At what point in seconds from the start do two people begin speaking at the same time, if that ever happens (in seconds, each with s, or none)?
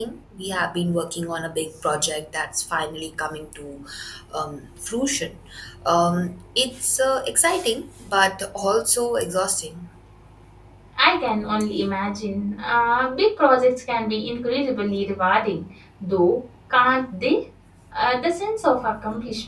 none